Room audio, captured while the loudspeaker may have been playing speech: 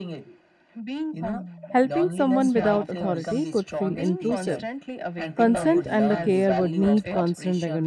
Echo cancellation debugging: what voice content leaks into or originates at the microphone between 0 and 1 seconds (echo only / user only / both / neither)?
echo only